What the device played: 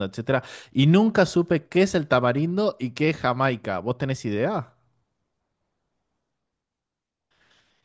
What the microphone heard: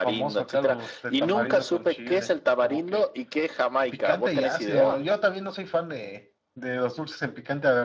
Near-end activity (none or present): present